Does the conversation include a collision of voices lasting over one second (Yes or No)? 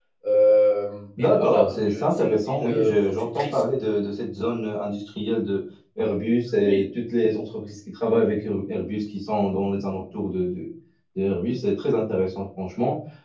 Yes